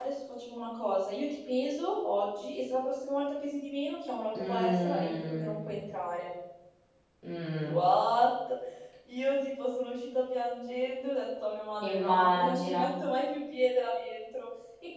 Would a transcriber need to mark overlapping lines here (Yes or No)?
Yes